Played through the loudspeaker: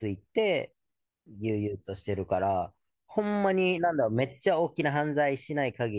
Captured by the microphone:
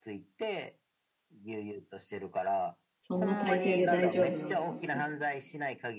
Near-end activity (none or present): present